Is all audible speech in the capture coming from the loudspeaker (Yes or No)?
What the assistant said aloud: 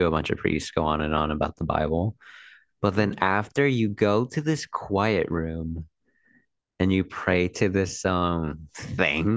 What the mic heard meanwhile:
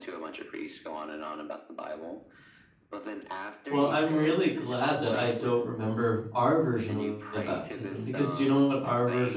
No